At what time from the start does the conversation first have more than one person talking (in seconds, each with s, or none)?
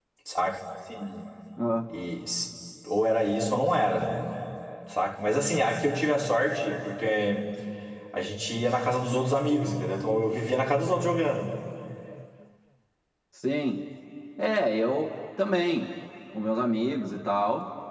none